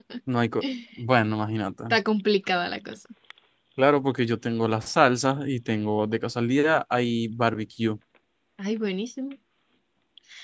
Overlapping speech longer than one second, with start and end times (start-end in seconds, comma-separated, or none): none